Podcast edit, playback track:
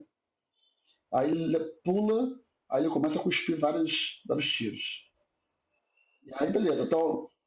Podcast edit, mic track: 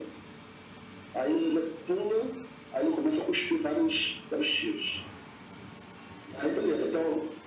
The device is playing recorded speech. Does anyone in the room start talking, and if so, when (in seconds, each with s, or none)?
none